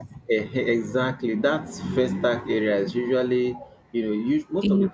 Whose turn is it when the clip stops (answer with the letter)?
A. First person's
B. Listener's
A